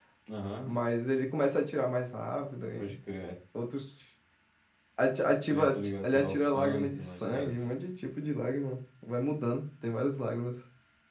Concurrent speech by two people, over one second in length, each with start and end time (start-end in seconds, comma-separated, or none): 5.5-7.7